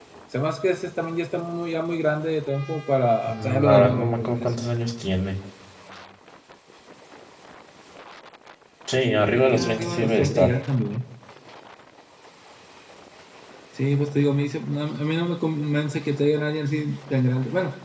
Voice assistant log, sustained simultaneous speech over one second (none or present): present